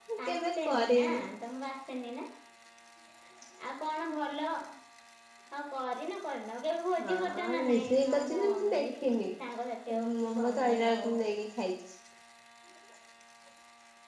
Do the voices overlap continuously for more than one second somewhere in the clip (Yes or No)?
Yes